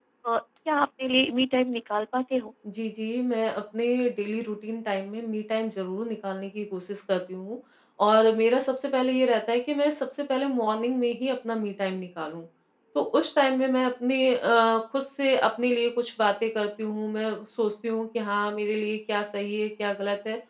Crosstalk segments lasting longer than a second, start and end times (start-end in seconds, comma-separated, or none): none